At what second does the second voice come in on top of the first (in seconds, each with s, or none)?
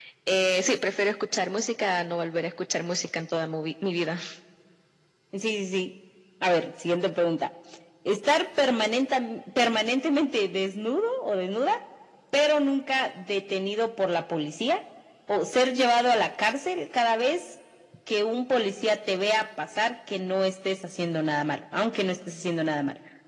none